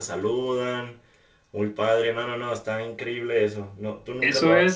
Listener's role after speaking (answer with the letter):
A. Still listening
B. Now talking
B